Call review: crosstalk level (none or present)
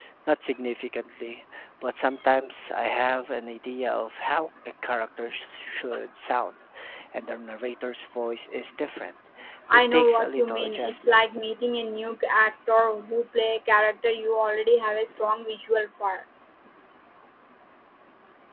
present